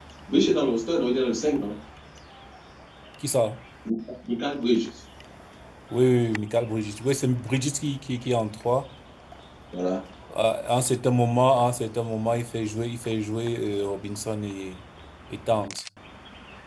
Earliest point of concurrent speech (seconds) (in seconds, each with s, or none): none